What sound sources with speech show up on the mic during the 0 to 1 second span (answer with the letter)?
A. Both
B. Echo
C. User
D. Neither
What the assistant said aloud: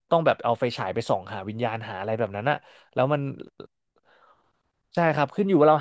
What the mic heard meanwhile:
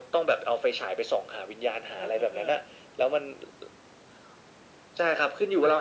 B